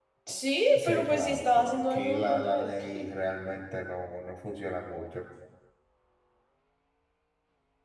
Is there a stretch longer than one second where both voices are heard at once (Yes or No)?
Yes